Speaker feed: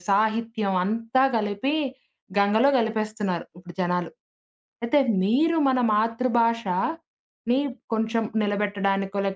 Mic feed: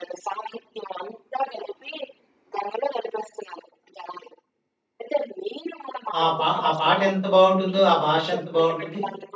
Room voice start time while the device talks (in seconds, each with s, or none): 6.2 s